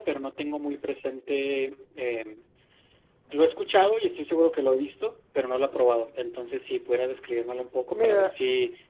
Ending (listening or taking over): taking over